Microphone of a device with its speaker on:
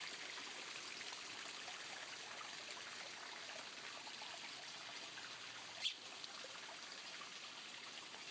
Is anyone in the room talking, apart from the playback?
No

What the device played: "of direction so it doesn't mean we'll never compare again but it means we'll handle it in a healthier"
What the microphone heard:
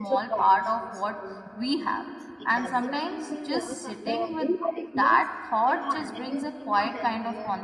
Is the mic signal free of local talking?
No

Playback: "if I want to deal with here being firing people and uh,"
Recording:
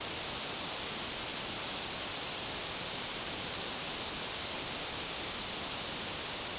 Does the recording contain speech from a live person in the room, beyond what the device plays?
No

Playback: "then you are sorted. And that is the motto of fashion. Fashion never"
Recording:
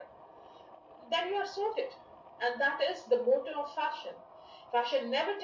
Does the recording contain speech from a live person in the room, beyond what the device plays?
No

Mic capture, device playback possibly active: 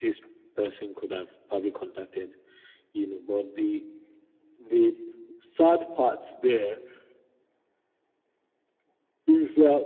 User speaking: No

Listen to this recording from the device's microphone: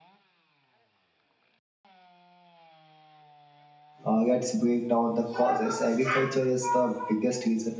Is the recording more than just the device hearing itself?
Yes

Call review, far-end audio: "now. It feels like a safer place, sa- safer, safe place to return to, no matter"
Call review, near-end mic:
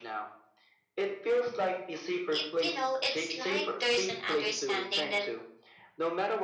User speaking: Yes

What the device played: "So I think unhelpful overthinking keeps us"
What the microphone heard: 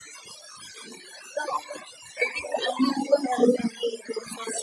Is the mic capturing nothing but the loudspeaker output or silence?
Yes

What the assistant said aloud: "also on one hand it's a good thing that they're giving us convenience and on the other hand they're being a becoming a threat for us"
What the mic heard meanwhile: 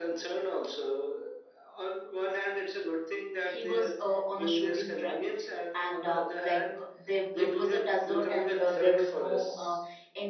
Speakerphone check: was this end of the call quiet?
No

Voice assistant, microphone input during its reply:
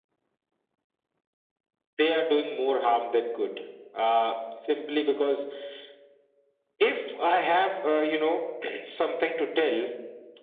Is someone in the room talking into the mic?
No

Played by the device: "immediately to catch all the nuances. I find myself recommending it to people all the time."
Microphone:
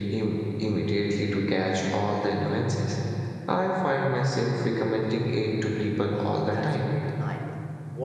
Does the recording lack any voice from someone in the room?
No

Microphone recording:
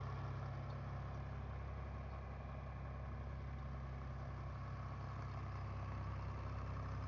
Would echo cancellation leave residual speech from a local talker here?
No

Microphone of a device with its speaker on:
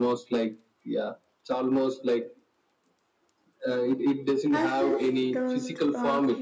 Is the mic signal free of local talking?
No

